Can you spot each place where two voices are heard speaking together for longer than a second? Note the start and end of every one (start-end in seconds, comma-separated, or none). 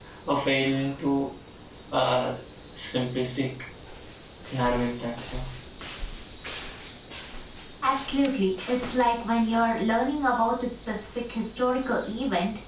none